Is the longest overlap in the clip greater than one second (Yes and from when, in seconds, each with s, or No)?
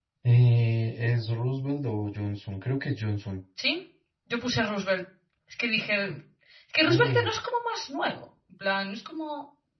No